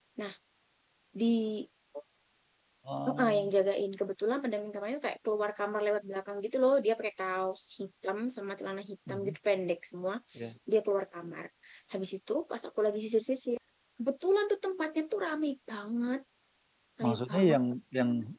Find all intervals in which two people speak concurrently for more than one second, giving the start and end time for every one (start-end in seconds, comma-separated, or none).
none